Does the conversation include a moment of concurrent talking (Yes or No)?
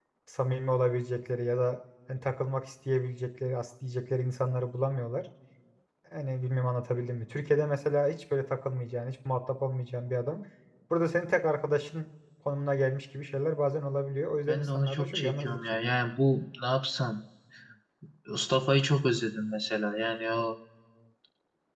Yes